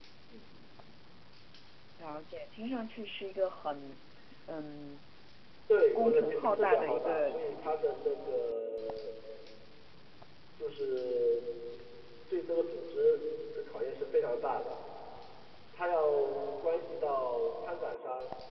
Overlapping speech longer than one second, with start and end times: 6.0-7.7

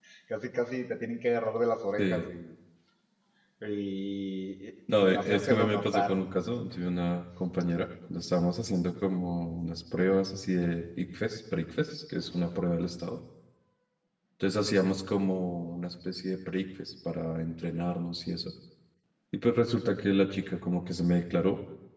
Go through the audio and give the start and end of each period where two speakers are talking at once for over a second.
4.9-6.2

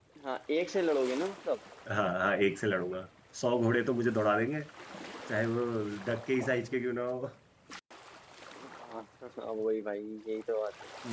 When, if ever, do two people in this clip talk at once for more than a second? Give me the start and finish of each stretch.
none

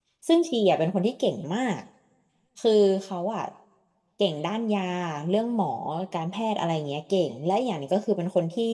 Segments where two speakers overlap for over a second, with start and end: none

